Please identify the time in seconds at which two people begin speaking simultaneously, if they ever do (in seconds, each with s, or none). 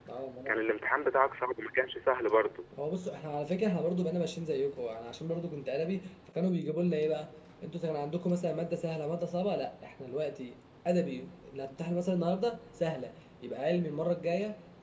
none